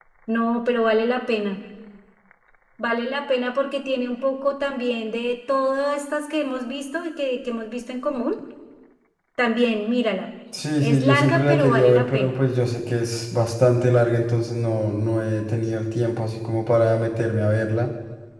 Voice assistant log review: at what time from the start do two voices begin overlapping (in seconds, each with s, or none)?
10.8 s